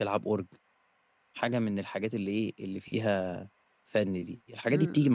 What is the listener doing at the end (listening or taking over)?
listening